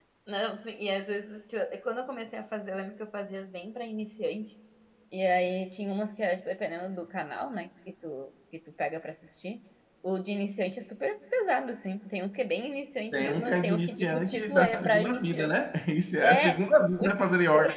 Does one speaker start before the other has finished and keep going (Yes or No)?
Yes